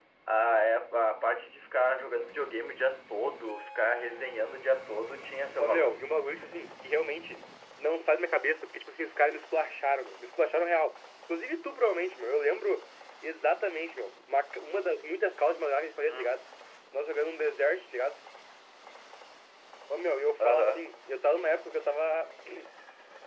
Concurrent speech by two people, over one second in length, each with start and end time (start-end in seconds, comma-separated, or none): none